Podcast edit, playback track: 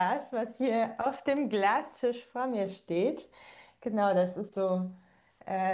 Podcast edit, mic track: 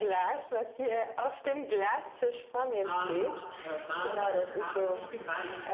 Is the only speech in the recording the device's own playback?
No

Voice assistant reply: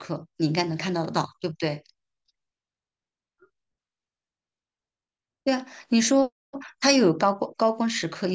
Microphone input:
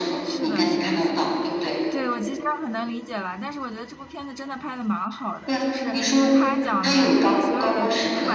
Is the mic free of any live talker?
No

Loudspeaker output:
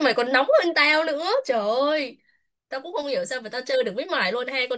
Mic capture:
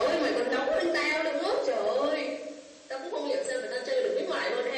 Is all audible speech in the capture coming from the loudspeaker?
Yes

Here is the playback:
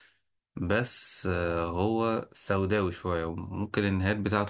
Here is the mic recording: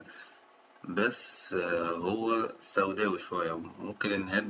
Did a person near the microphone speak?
No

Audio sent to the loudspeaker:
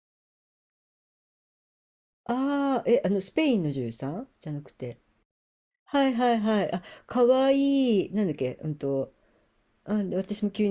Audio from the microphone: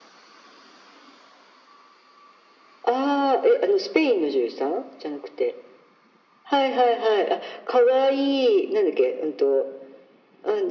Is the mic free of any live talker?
Yes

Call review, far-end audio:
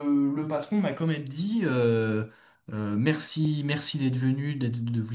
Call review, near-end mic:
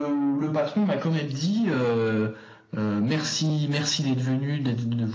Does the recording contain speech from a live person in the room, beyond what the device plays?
No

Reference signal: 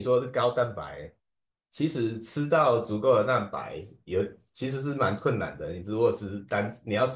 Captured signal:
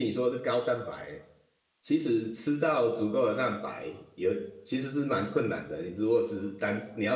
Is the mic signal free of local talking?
Yes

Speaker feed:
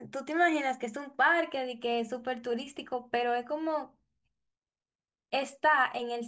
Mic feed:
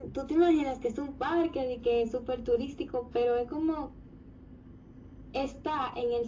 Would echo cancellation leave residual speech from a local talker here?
No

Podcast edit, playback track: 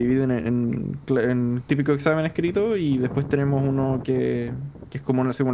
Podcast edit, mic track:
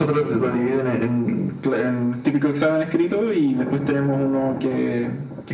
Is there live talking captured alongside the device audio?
No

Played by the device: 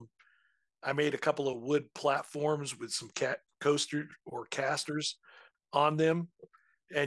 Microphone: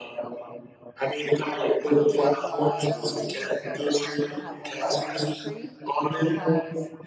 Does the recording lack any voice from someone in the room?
No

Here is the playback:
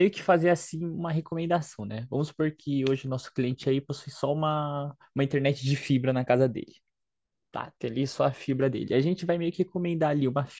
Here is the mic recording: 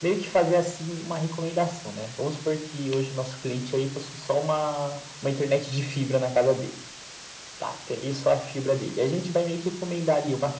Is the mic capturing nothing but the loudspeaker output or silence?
Yes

